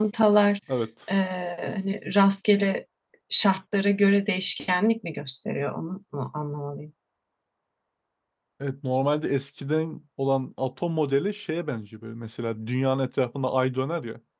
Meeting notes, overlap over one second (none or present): none